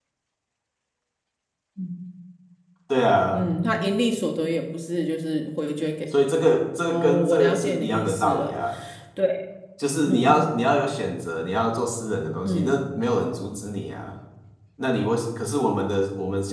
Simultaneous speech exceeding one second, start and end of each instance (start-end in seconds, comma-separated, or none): 6.8-8.6